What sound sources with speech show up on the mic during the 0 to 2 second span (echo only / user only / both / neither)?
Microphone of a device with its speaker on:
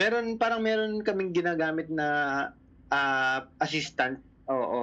echo only